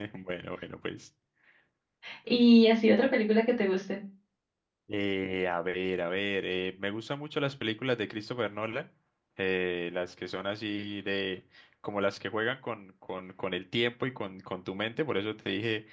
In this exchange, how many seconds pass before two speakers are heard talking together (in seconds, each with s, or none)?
none